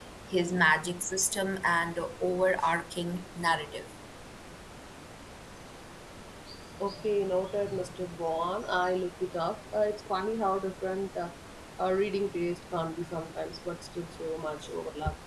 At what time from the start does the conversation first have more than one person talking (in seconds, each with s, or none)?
none